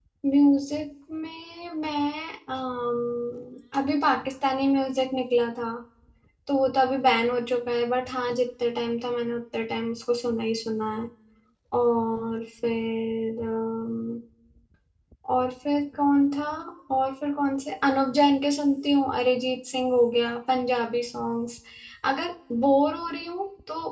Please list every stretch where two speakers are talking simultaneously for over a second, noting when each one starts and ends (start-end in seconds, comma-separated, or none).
none